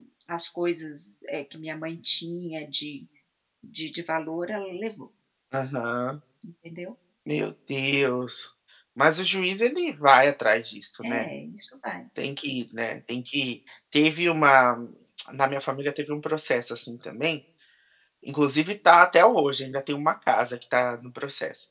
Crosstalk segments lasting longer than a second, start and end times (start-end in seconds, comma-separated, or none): none